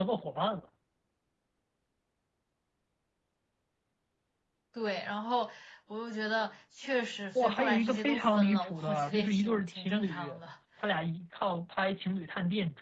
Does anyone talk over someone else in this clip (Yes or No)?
Yes